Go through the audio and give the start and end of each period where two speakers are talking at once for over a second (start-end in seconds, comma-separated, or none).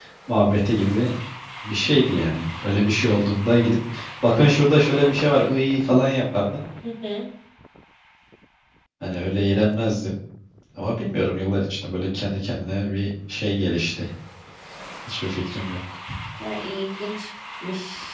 none